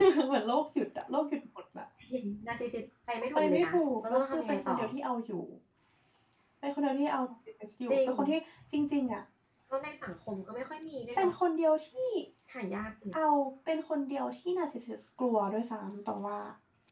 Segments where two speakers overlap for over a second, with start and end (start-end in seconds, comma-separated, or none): 3.4-4.8